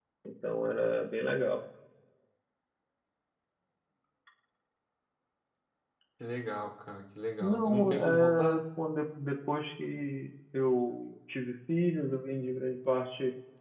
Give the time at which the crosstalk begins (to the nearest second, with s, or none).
7 s